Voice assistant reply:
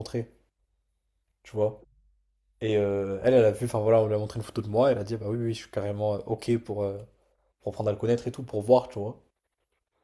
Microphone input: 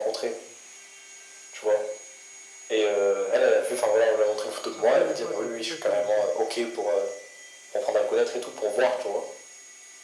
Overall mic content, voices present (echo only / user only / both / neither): both